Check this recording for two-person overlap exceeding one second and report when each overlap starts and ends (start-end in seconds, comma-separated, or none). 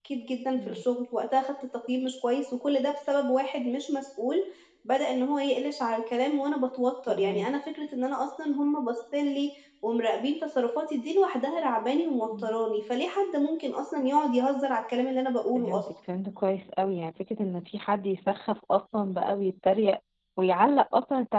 none